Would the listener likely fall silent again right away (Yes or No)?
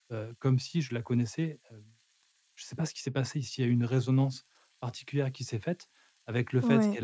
Yes